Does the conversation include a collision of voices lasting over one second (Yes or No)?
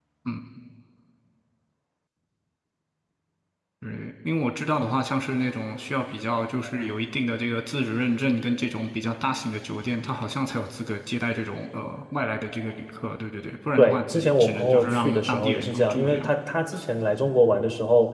Yes